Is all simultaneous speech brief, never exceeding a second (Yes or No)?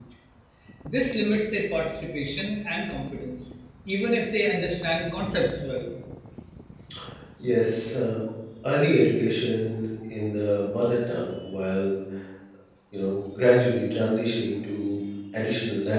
Yes